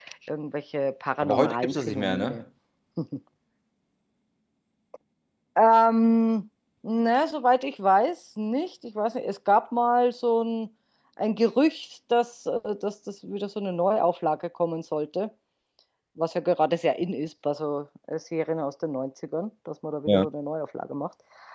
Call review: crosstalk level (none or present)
present